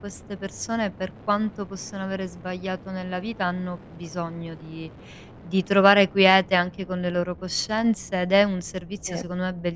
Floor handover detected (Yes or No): No